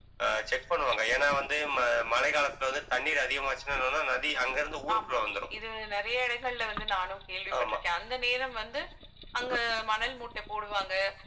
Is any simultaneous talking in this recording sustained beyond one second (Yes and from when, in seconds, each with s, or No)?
No